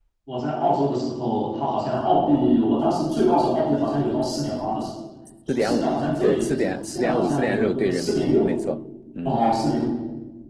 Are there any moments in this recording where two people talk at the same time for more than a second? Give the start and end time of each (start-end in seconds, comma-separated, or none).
5.5-8.5